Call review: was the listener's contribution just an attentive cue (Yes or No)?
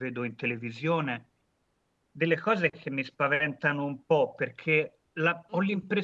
Yes